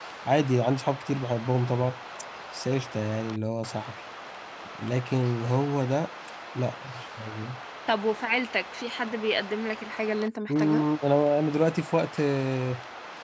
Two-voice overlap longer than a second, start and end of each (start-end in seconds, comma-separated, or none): none